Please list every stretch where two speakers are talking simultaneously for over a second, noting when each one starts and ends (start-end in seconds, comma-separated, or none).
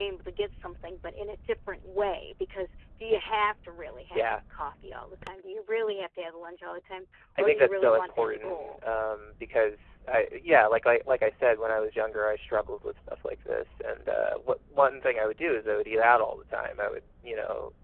7.4-8.8